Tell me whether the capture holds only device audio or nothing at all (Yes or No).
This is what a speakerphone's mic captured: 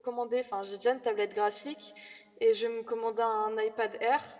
No